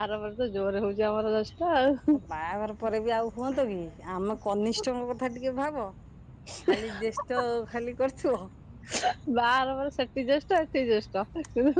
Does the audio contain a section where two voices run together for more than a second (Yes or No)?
No